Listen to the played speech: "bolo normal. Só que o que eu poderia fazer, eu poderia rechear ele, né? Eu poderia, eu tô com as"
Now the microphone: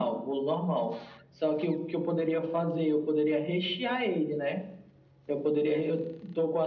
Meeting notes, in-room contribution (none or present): none